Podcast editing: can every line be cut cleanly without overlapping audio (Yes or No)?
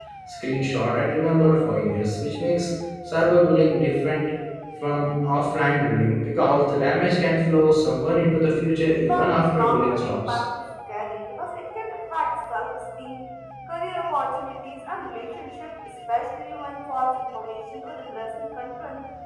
No